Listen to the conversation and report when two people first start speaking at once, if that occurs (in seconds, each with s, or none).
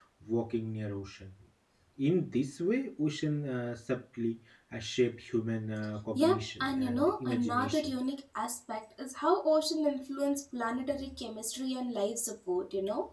6.2 s